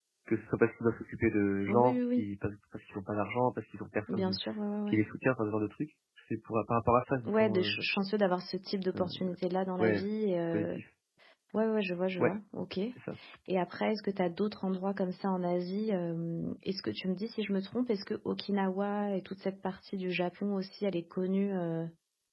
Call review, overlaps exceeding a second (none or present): none